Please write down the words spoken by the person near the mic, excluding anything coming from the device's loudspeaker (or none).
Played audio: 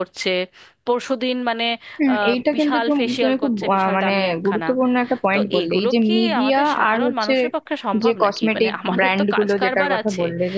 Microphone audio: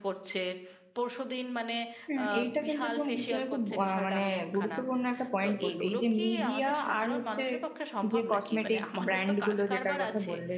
none